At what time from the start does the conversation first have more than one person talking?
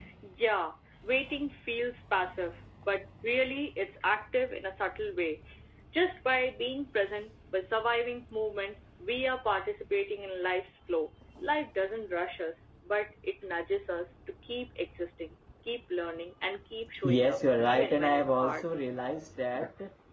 17.0 s

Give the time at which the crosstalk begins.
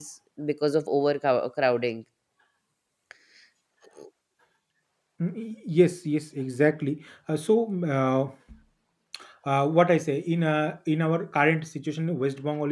none

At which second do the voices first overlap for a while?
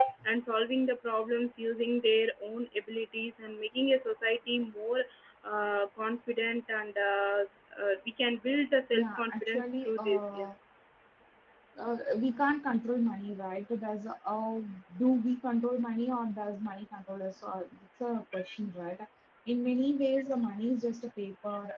8.9 s

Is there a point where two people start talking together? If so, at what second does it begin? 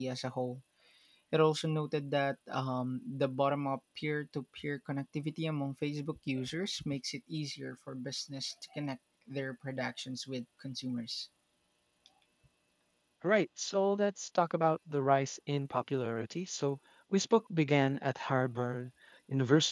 none

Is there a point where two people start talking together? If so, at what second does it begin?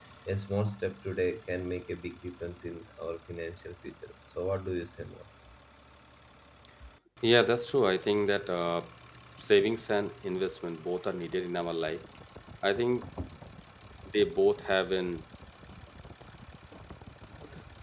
none

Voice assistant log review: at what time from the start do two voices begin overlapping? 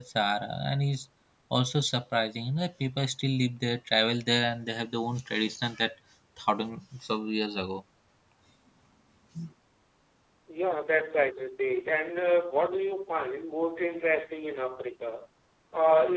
none

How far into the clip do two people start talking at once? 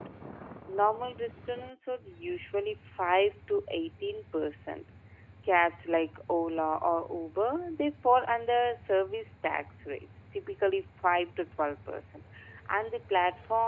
none

